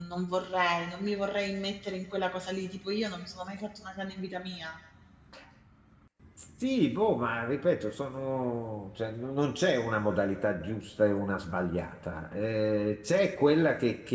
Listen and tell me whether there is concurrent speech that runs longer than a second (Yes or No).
No